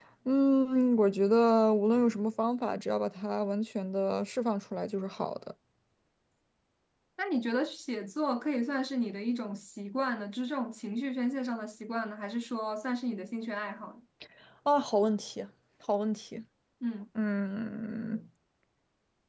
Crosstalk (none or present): none